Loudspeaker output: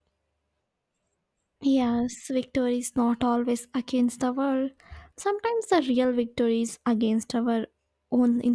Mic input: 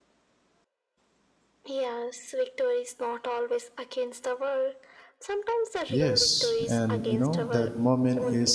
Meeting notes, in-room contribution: present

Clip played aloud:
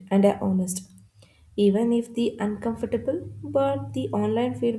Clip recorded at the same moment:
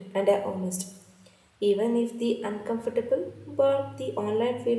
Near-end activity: none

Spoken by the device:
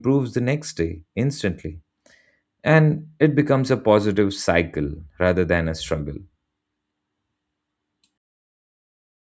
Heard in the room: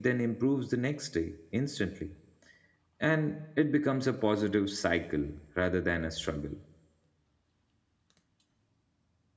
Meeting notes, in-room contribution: none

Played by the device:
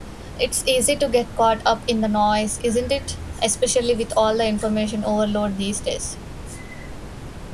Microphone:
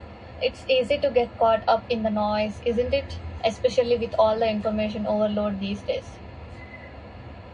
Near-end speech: none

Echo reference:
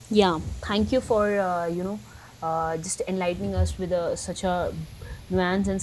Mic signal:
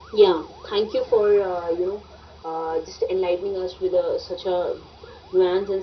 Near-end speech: none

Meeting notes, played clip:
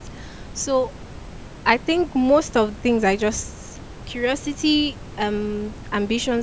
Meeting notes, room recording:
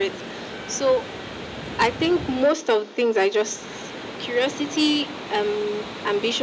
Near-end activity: none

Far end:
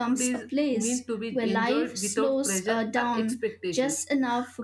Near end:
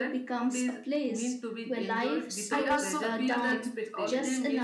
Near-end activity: present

